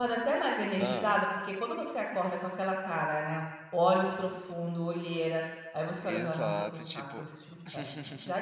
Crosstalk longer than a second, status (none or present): present